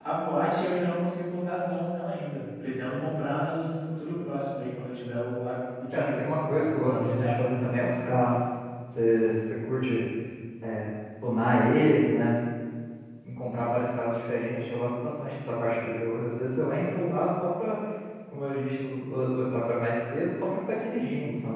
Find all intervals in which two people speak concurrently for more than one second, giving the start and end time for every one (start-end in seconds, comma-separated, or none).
5.9-7.7